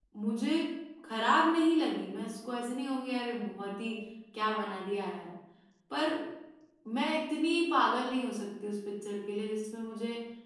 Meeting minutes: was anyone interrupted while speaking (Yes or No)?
No